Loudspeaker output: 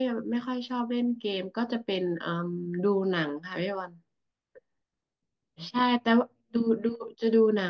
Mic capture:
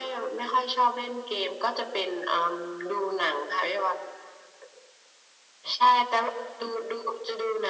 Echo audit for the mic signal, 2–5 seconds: echo only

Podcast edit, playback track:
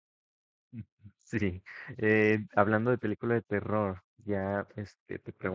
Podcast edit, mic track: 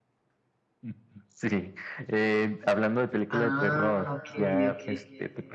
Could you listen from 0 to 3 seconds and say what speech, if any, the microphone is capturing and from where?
echo only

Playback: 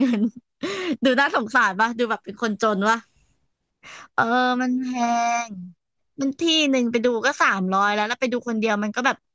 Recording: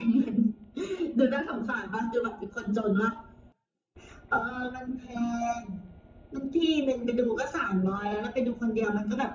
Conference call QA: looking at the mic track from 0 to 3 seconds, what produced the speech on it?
echo only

